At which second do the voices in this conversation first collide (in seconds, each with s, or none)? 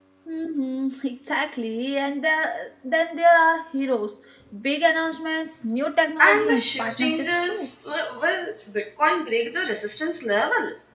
6.2 s